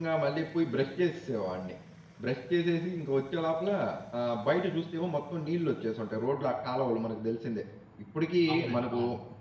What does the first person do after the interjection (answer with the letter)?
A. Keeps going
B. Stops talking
A